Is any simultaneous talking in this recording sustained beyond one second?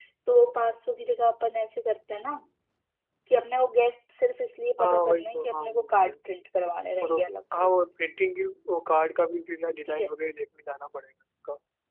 Yes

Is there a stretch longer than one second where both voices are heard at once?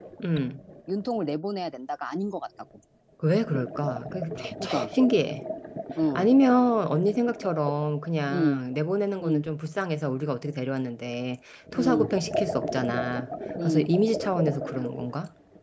No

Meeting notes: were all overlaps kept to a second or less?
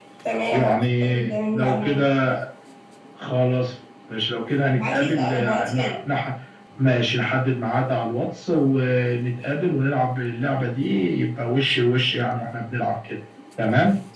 No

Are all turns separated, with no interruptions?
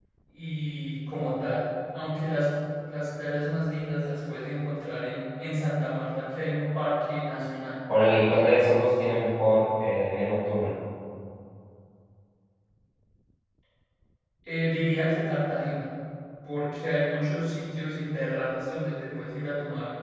Yes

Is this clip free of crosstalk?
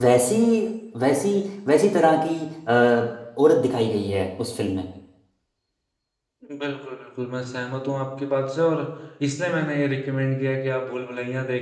Yes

